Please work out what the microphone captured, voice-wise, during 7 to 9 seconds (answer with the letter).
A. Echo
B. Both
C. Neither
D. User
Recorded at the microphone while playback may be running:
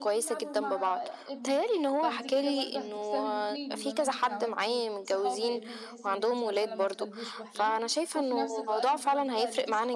B